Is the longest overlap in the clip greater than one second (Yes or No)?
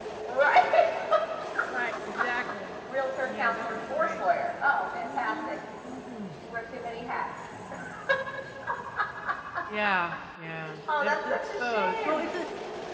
Yes